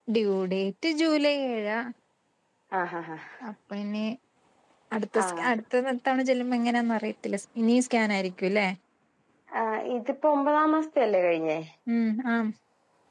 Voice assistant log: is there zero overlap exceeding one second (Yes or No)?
Yes